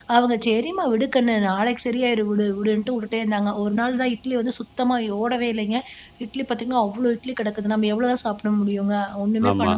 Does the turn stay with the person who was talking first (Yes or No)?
Yes